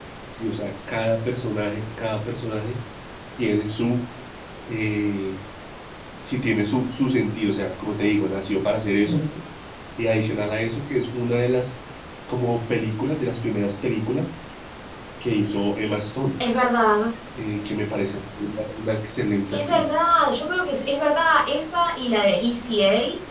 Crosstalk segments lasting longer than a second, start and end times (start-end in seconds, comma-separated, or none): none